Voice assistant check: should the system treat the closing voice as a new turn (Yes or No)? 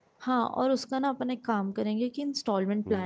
No